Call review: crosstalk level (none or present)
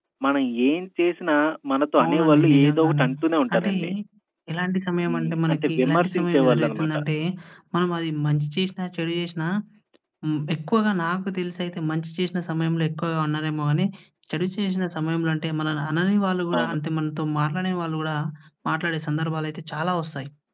present